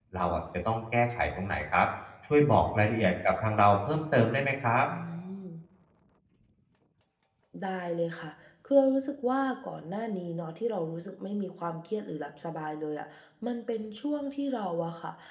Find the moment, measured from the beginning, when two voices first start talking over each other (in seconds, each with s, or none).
none